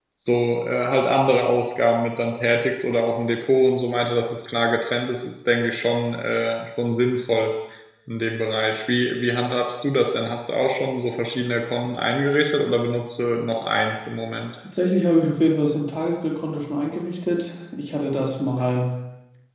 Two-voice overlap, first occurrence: none

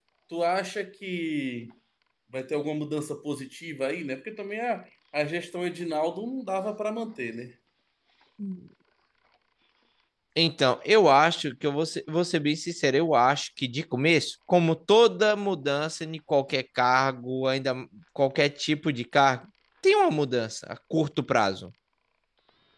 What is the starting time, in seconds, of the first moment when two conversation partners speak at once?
none

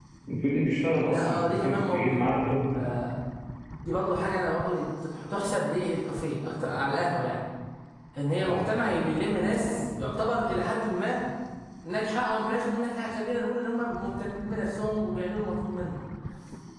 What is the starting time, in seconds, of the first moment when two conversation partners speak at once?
1.1 s

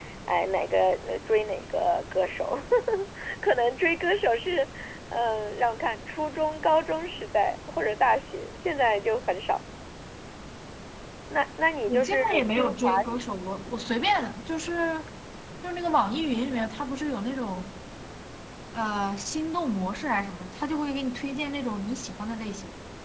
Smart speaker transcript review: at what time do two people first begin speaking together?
11.9 s

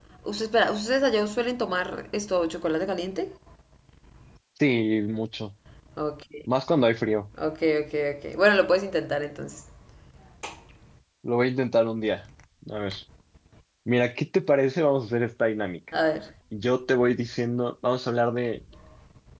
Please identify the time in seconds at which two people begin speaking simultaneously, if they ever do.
none

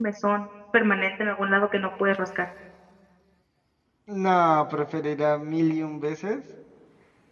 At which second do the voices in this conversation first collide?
none

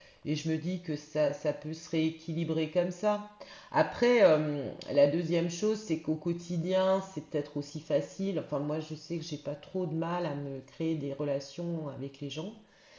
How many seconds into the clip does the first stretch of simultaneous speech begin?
none

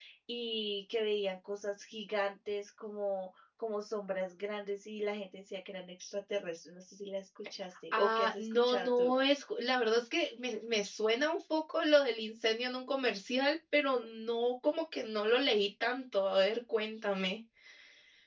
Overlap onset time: 7.9 s

